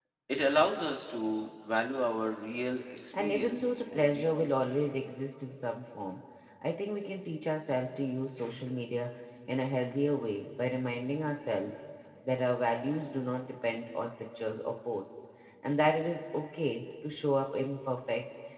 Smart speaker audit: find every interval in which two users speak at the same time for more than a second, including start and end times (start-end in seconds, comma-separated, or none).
3.2-4.5